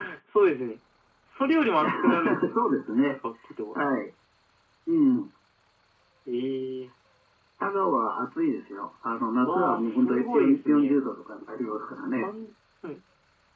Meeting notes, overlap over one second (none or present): present